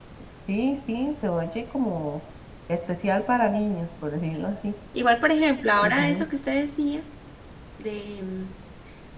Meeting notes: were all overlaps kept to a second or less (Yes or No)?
Yes